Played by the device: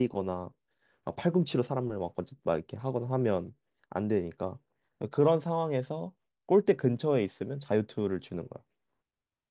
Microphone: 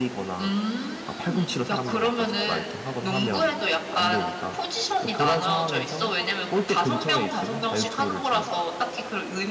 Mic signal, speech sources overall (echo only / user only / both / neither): both